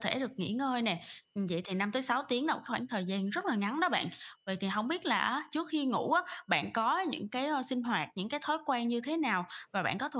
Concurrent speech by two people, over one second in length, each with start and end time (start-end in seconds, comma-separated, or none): none